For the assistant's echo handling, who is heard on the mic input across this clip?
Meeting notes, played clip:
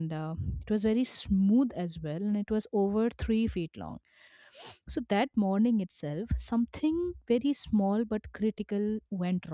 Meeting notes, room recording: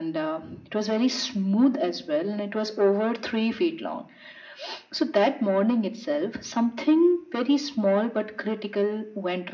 echo only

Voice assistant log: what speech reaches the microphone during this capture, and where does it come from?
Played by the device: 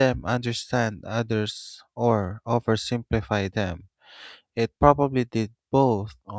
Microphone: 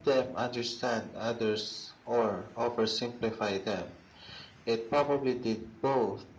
echo only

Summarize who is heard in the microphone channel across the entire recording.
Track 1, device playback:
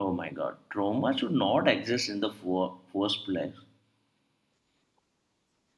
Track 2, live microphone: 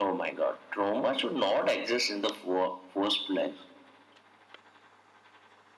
echo only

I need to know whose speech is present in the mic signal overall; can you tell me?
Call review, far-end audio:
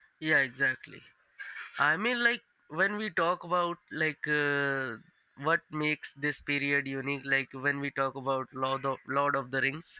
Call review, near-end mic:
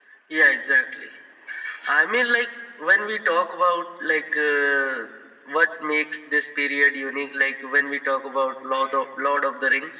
echo only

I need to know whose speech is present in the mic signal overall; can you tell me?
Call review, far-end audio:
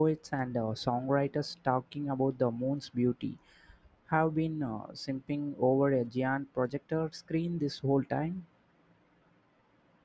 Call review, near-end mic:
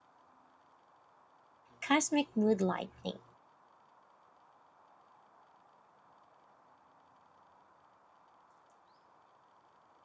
user only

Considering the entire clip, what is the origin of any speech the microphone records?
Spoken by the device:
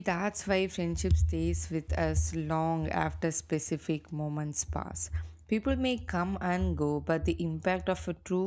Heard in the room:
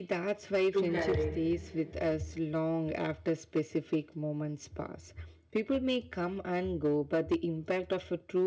both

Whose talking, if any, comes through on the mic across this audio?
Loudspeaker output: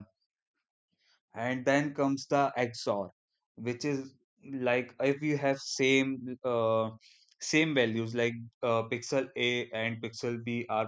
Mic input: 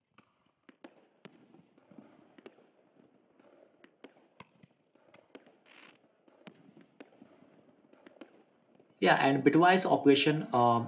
user only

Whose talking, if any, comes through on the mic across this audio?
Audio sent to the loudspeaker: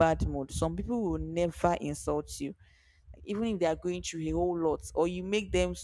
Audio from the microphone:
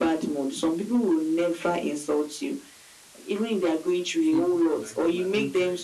both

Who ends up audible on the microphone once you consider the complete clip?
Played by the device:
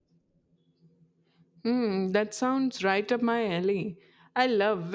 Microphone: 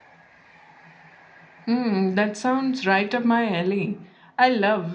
echo only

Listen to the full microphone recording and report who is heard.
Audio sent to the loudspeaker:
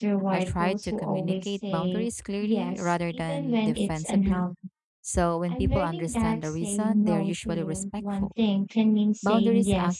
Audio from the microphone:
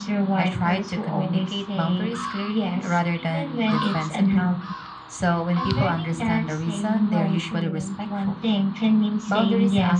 echo only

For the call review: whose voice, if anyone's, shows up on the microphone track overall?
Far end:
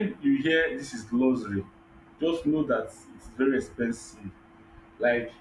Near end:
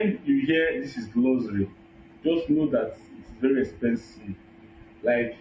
echo only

